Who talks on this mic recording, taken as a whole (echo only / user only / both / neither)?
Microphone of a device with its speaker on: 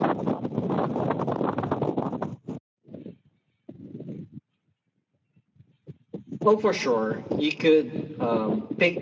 user only